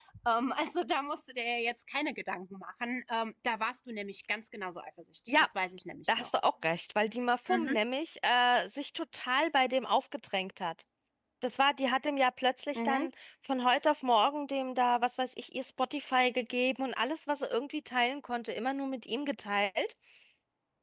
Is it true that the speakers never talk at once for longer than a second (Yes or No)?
Yes